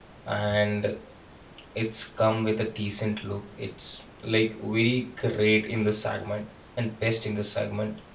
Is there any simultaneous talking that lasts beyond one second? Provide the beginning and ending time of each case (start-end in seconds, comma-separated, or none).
none